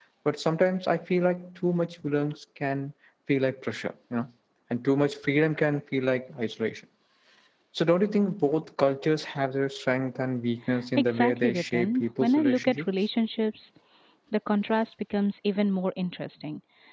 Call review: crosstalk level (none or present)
present